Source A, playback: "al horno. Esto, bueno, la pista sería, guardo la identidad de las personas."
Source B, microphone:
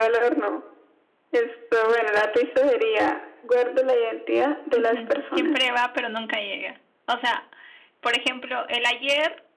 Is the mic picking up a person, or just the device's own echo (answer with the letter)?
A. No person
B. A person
B